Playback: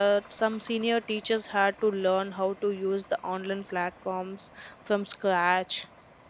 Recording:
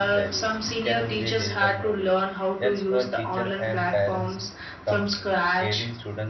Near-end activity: present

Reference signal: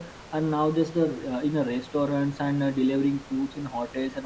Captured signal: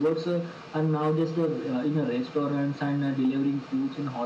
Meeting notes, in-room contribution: none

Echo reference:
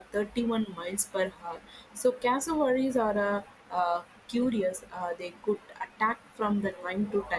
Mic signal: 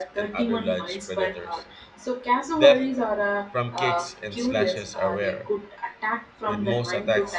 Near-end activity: present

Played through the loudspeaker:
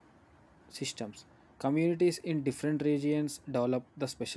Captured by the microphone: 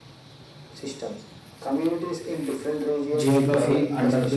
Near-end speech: present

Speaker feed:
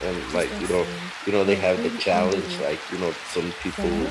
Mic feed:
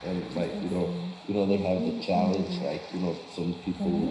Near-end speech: none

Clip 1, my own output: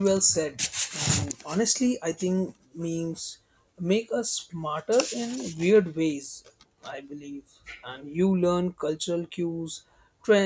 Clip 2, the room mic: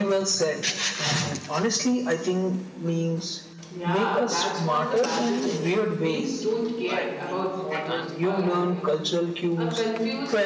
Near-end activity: present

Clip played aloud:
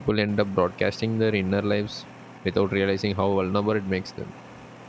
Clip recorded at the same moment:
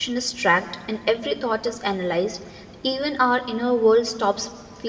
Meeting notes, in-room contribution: present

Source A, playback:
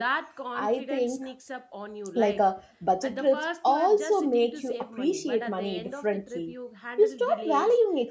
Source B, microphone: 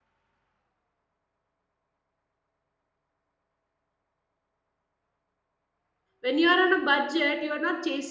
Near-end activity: present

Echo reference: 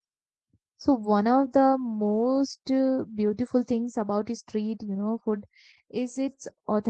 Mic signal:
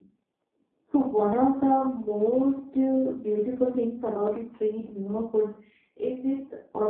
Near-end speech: none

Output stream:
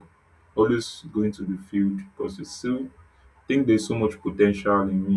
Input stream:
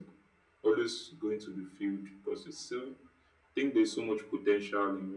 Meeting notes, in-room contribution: none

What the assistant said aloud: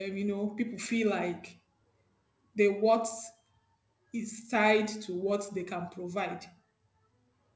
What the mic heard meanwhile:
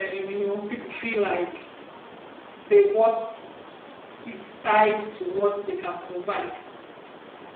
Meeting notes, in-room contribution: none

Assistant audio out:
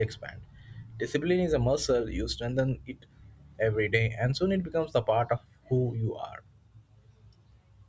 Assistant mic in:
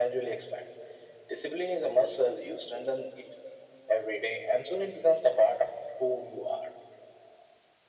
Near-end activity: none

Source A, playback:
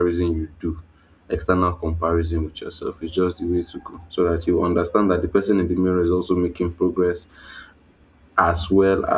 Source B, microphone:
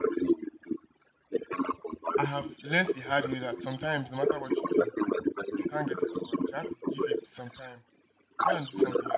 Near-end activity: present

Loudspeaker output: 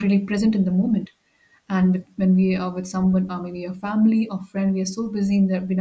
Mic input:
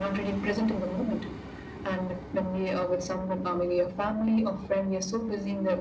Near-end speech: none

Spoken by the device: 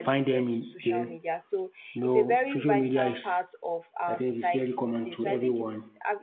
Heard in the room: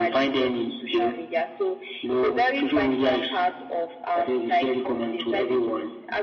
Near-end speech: none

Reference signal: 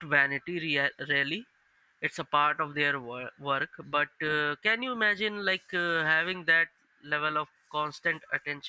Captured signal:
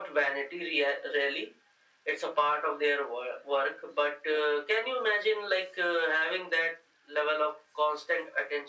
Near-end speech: none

